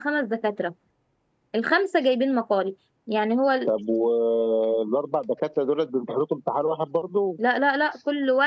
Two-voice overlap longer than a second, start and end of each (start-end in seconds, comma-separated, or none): none